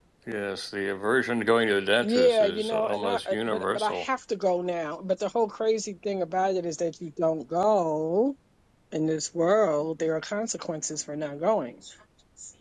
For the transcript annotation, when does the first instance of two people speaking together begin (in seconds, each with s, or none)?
2.0 s